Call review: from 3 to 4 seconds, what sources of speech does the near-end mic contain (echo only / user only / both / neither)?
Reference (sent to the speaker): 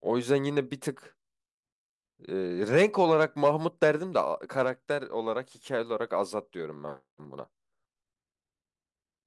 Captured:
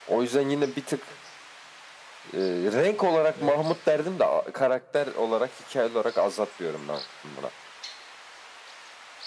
both